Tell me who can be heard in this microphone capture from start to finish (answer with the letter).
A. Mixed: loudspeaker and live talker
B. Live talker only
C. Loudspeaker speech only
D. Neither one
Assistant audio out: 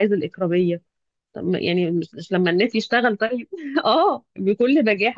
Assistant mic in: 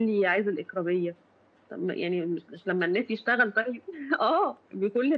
C